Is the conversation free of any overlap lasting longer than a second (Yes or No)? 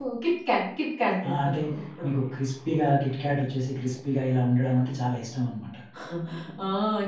Yes